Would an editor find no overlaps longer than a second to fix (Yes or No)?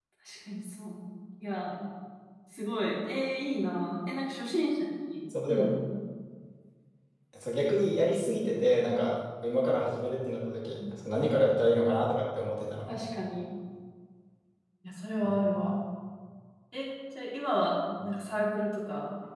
Yes